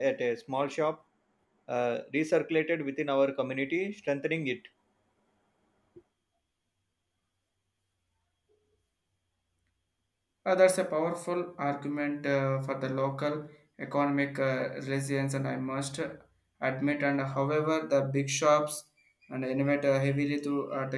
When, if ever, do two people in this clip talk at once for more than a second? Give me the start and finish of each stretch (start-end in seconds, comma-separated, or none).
none